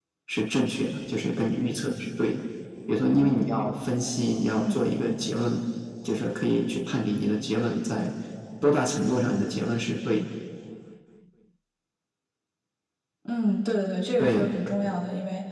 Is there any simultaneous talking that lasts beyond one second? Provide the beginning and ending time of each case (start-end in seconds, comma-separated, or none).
none